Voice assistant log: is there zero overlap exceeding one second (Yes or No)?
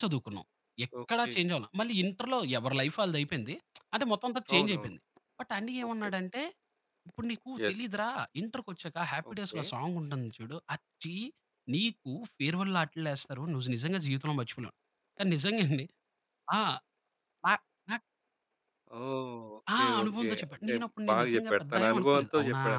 No